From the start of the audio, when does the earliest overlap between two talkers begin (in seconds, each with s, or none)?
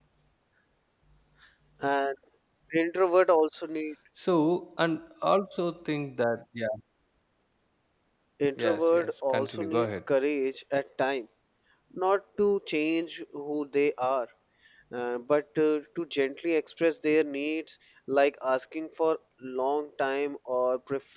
8.6 s